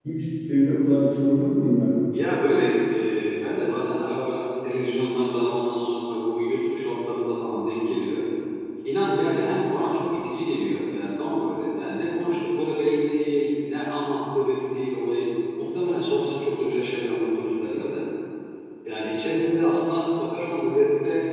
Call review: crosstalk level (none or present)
none